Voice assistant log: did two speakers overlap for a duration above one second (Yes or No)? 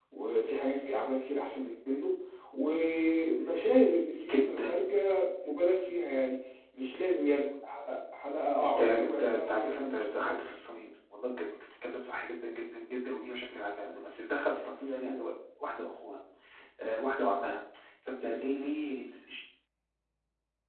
Yes